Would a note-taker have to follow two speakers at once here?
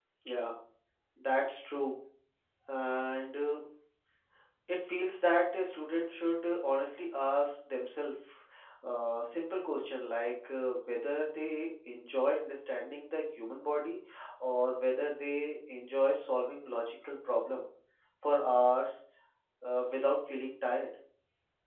No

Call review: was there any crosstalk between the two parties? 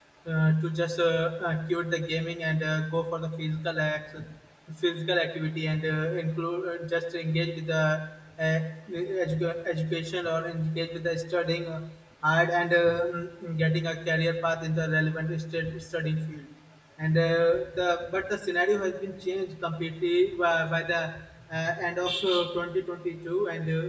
No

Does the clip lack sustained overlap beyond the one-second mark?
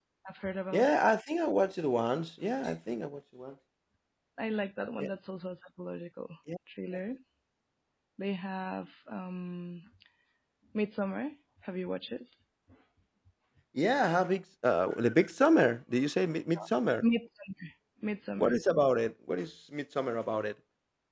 Yes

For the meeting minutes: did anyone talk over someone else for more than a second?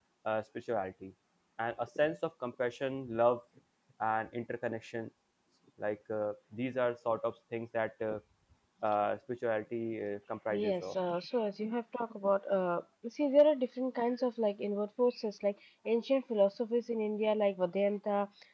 No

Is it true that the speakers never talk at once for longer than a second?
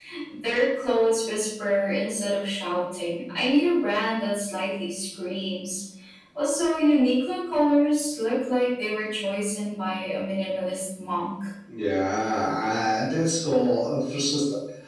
Yes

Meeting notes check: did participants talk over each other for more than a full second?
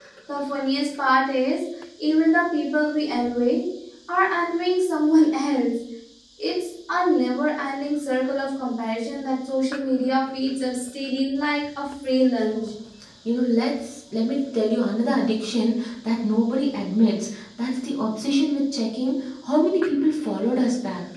No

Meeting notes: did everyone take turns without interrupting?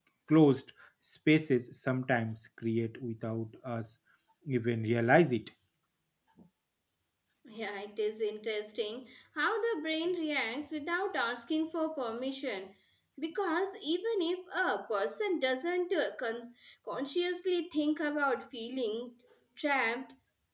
Yes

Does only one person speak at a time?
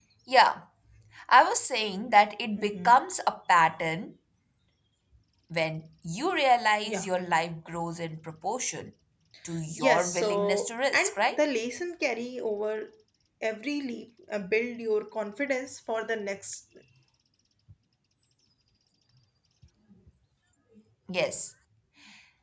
No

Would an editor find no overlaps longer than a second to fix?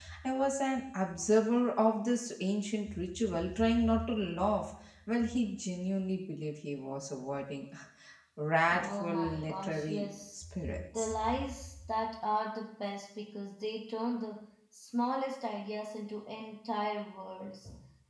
No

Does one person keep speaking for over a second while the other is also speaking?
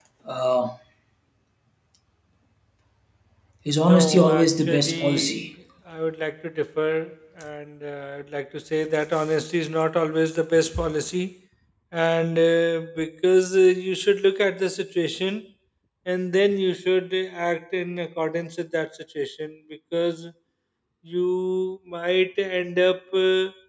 Yes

